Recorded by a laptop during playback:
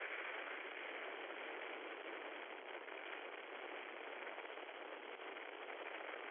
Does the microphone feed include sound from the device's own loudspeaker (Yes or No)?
No